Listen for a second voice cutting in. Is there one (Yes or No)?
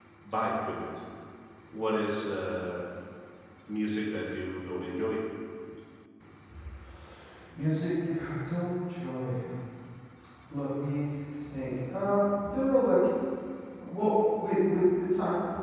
No